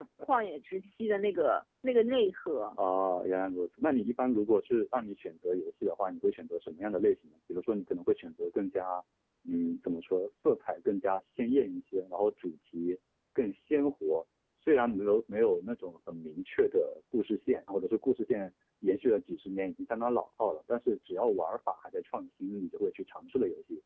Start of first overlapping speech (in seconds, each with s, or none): none